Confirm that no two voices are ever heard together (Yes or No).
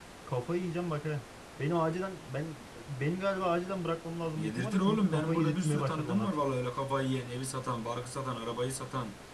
No